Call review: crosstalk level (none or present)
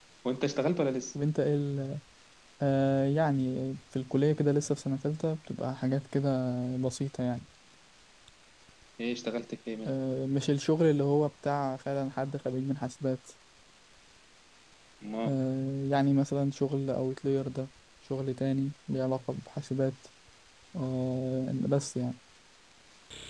none